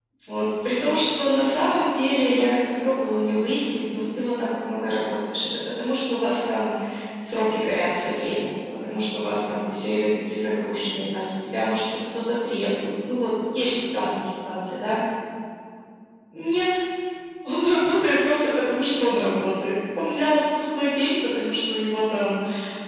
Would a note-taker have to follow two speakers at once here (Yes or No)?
No